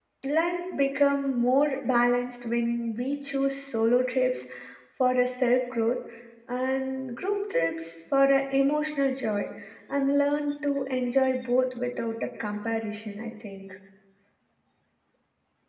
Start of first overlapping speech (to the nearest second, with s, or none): none